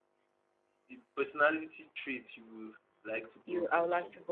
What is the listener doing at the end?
taking over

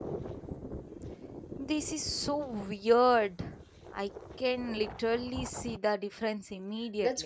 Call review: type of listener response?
taking over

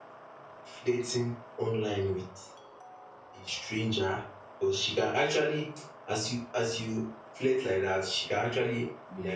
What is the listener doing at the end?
listening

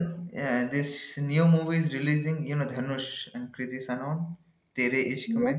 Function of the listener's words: taking over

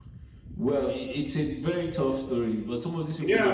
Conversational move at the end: taking over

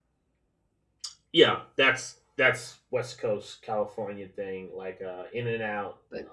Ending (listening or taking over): listening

